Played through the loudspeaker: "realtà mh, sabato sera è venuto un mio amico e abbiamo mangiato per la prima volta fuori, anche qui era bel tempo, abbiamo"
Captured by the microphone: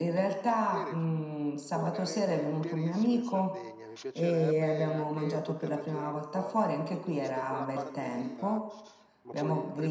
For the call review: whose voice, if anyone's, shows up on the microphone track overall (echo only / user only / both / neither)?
both